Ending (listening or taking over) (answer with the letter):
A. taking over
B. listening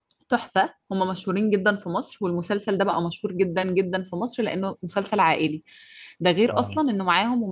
B